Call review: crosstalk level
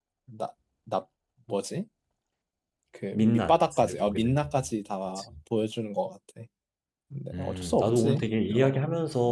present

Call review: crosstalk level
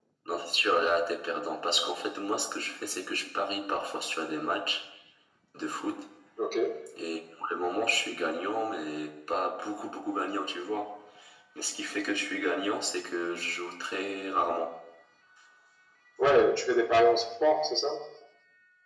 none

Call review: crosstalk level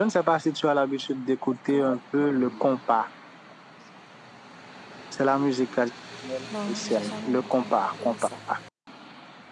present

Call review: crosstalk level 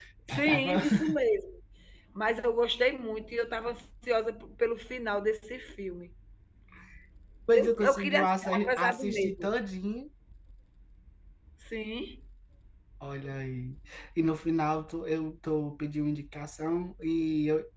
present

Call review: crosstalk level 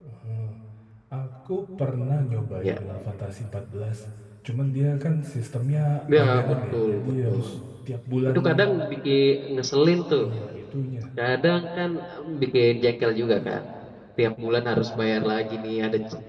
present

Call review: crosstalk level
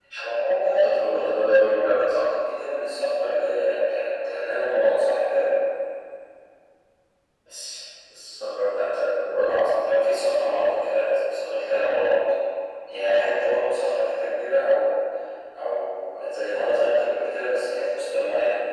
present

